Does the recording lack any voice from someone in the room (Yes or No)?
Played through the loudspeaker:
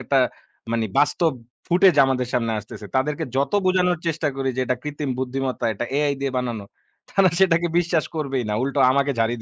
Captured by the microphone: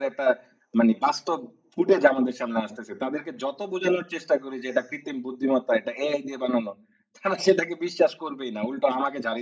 Yes